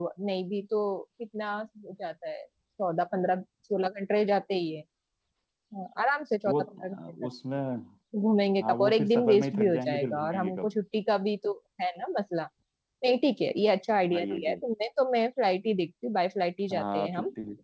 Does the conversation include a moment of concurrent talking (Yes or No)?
Yes